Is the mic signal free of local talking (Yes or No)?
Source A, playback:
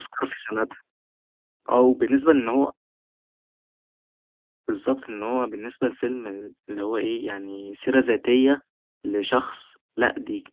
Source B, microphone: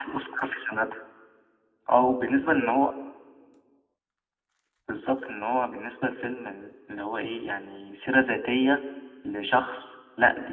Yes